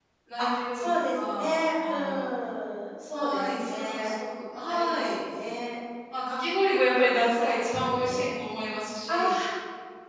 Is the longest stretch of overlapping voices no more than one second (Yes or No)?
No